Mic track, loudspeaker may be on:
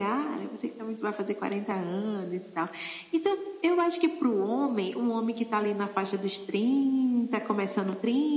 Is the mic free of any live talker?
Yes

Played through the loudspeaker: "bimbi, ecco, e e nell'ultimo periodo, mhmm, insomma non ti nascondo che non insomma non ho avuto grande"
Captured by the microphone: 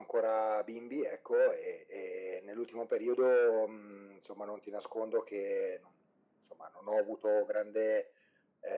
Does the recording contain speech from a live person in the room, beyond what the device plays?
No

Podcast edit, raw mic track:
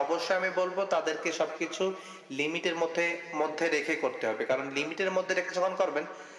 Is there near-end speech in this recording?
No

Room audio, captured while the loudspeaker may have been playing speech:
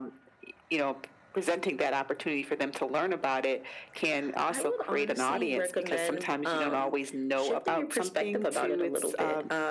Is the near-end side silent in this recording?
Yes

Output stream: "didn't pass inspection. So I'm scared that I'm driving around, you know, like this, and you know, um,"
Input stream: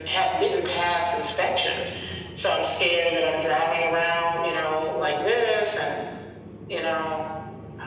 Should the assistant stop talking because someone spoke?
No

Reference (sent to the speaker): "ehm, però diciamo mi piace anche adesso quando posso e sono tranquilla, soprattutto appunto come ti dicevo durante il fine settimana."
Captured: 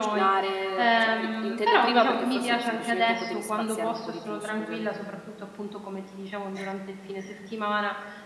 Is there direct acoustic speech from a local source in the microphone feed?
Yes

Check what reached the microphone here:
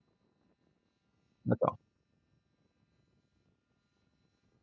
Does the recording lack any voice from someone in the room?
No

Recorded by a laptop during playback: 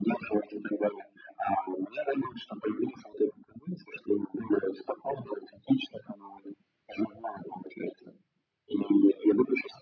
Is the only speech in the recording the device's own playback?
Yes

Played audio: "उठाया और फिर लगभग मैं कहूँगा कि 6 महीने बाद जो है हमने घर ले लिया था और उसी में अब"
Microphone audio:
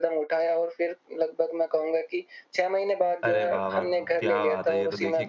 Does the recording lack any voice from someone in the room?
No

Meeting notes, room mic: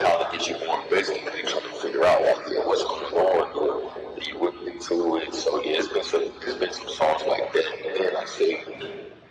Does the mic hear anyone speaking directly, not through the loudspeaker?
No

